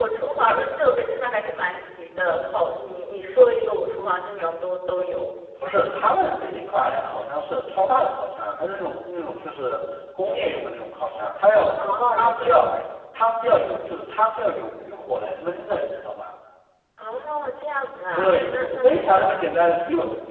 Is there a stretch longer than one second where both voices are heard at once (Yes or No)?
Yes